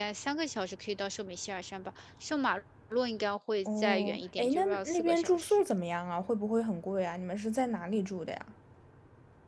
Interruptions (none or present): present